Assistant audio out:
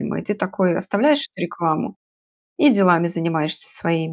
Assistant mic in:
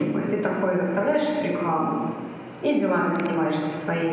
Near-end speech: none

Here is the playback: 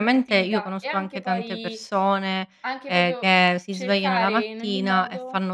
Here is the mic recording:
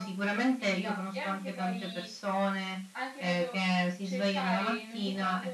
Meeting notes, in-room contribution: none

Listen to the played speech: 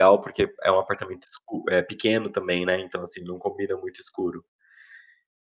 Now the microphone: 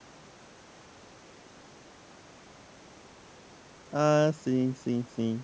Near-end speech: present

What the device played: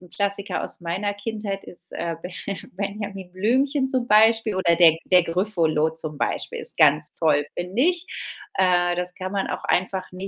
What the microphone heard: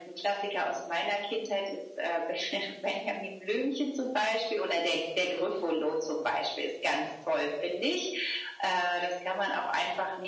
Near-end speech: none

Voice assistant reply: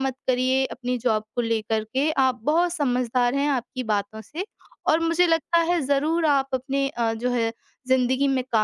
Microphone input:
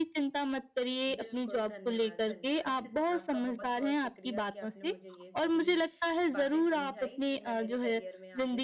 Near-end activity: present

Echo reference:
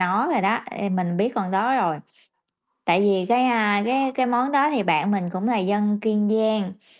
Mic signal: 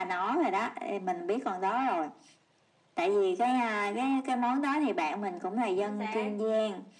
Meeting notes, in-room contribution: present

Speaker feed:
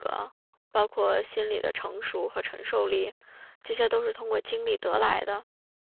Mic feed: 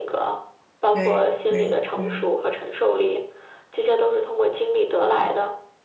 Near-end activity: present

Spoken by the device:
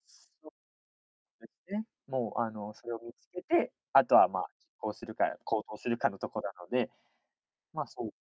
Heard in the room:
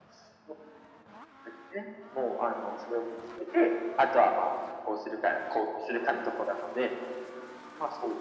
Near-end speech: none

